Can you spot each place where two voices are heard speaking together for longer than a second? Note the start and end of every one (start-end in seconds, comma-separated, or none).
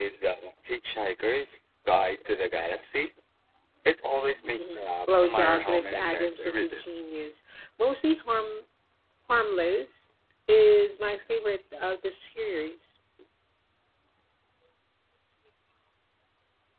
4.6-6.8